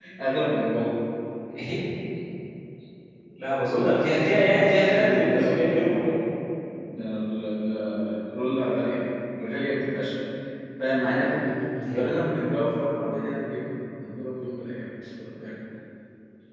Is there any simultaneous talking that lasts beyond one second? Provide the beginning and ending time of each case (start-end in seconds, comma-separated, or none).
4.4-6.0